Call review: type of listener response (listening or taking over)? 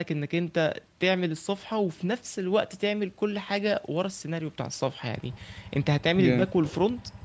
listening